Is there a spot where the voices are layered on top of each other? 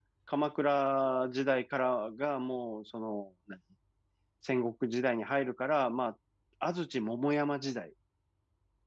No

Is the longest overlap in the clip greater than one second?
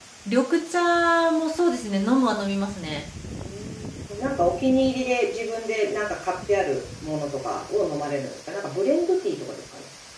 No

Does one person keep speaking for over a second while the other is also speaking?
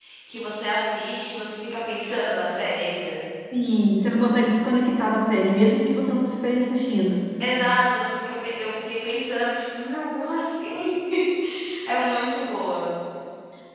No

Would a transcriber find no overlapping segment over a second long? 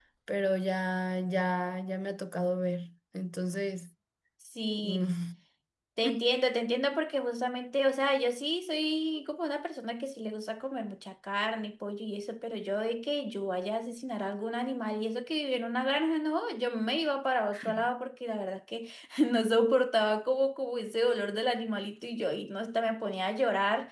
Yes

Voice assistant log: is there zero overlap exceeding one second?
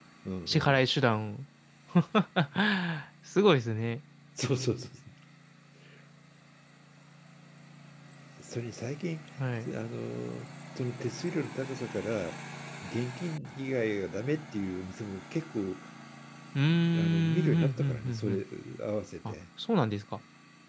No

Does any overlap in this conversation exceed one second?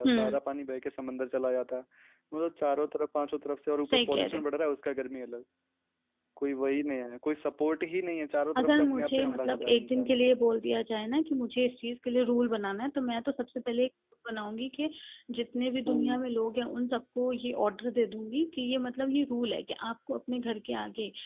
Yes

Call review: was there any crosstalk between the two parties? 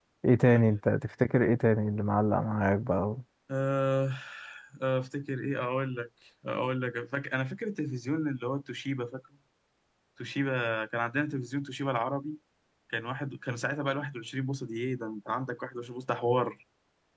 No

